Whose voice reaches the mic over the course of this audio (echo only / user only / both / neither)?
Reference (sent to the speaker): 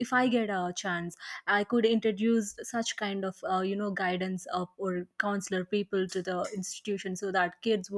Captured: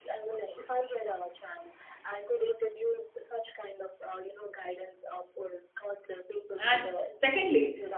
both